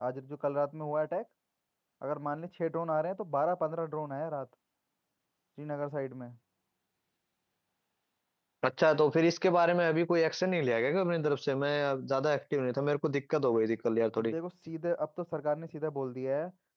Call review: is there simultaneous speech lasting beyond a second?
No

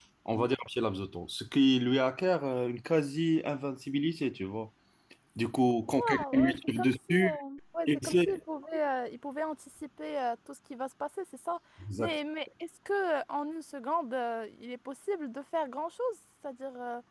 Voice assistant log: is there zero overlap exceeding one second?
No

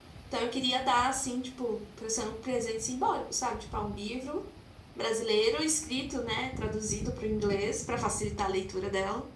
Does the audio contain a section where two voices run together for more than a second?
No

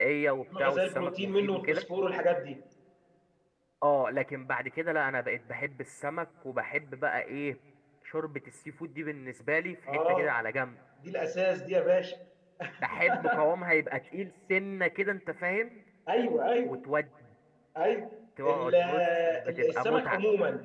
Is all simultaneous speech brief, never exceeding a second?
No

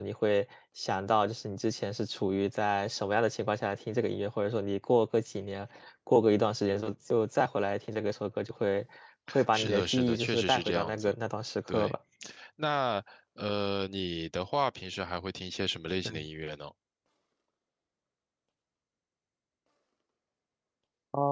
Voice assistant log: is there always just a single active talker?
No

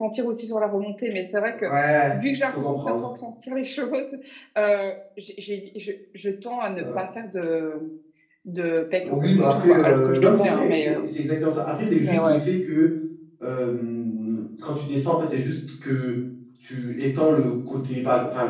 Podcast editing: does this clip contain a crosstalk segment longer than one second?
Yes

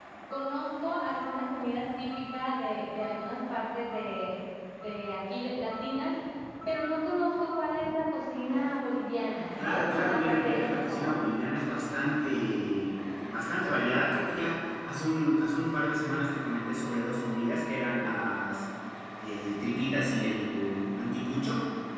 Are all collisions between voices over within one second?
No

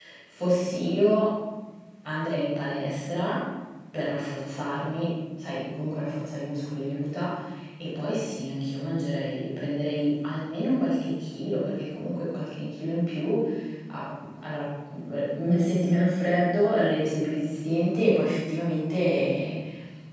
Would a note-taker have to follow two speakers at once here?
No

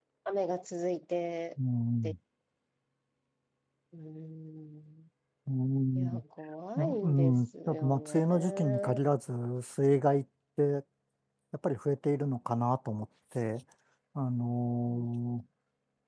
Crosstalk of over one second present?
Yes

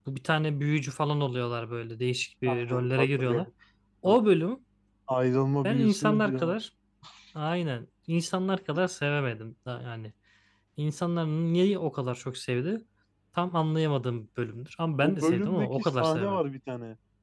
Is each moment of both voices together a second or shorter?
No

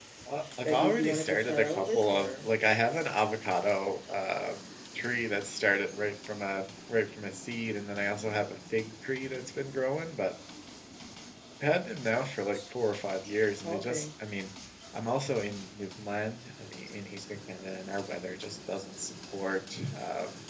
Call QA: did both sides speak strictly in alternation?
No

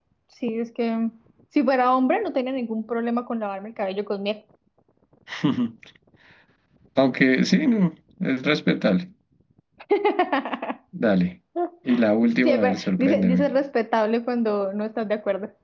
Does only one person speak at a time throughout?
No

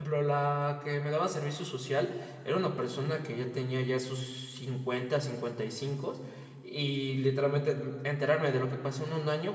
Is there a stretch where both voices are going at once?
No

